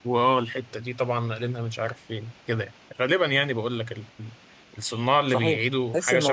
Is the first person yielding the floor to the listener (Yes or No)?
Yes